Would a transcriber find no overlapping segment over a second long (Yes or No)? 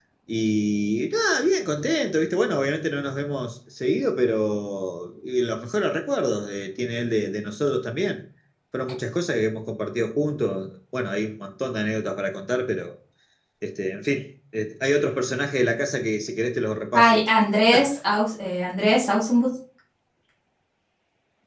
Yes